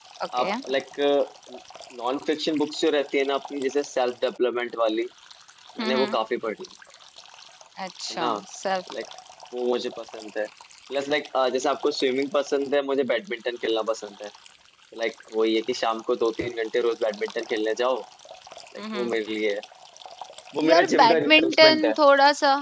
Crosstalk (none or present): present